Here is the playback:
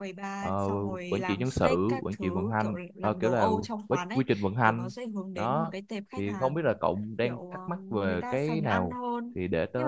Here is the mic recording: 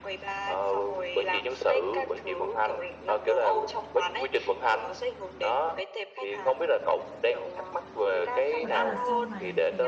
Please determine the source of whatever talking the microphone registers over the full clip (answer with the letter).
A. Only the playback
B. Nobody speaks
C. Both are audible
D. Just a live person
C